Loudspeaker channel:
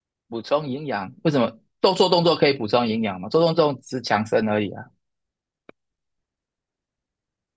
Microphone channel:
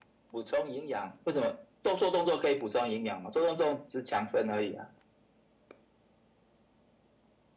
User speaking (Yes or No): No